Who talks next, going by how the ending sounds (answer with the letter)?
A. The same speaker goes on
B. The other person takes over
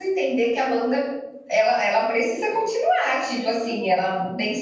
A